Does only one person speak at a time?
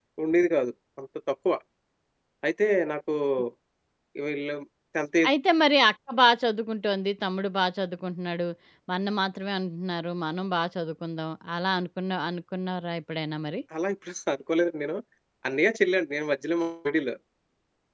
Yes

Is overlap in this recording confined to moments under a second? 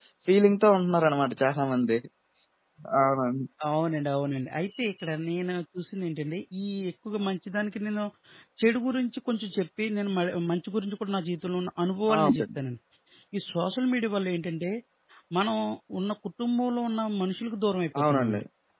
Yes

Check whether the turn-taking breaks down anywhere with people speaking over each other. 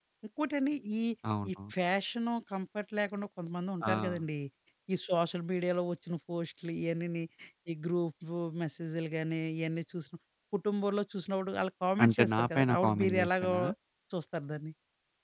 Yes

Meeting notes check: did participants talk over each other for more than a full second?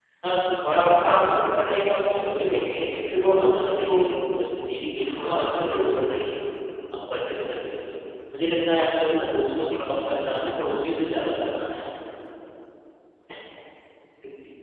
Yes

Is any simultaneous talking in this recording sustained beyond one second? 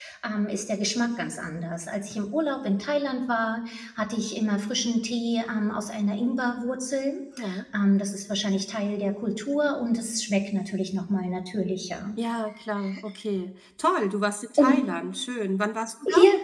No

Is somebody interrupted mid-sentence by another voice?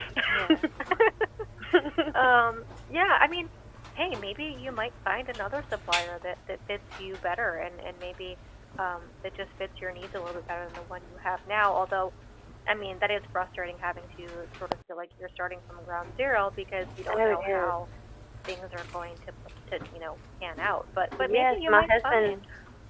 Yes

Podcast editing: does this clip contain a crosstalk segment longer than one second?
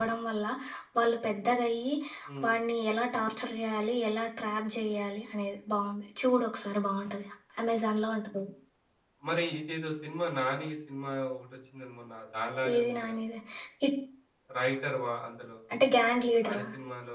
No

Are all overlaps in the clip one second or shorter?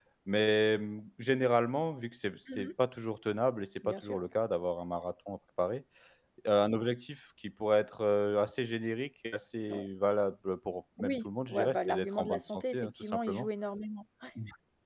No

